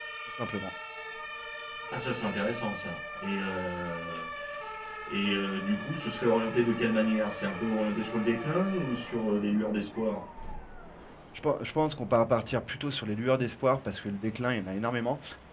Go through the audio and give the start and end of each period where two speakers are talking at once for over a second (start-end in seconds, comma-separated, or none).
none